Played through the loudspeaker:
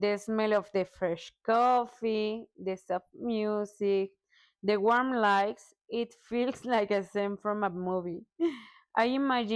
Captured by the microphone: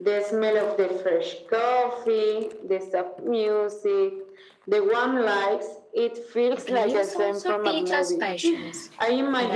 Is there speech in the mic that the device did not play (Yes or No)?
Yes